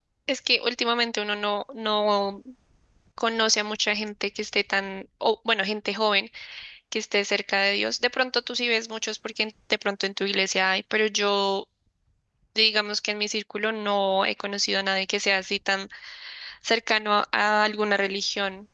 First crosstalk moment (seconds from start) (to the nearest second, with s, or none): none